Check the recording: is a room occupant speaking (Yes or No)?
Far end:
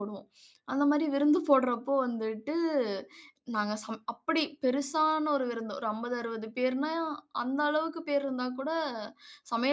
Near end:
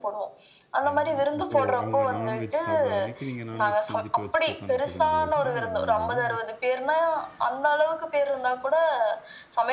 Yes